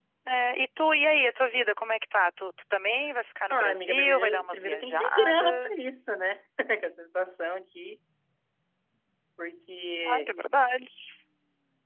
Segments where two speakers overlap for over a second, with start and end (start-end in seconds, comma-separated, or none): 3.5-5.8